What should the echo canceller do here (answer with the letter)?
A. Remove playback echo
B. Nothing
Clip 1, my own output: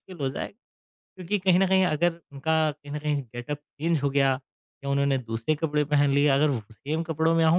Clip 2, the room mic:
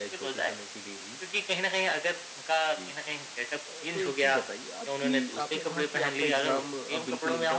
A